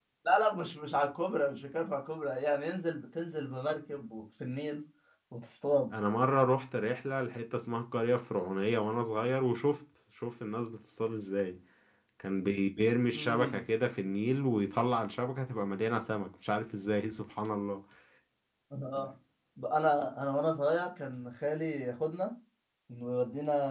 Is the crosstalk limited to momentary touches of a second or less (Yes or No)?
Yes